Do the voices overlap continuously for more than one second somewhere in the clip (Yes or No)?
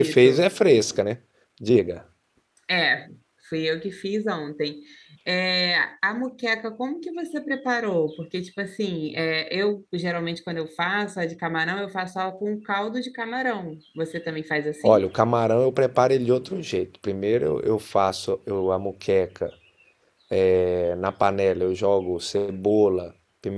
No